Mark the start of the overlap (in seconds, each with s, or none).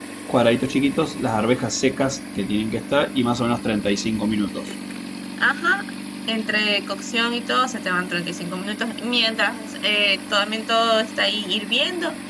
none